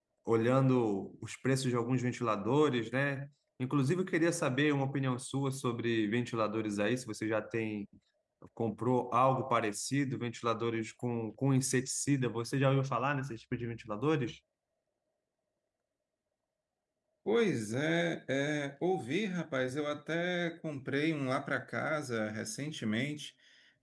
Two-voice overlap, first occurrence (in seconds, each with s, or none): none